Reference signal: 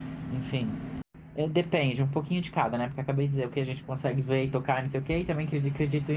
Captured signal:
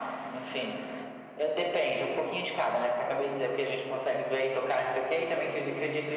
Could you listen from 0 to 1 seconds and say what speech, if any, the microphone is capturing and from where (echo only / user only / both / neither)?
echo only